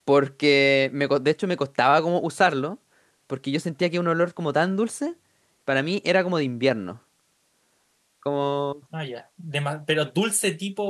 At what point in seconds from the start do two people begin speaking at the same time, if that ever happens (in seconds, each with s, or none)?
none